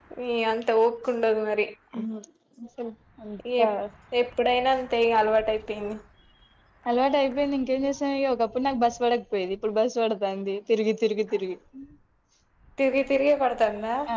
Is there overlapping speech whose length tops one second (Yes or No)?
No